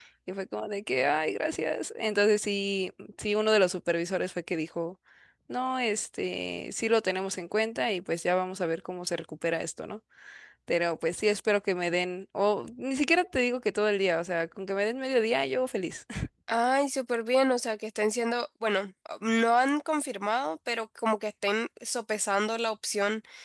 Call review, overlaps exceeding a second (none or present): none